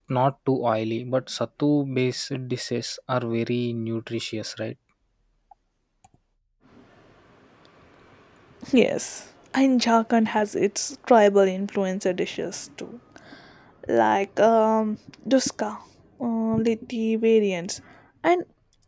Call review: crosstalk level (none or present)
none